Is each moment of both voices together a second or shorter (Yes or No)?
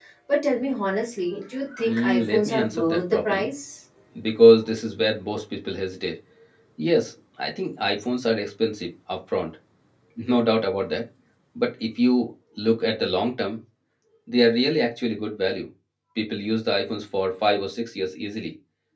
No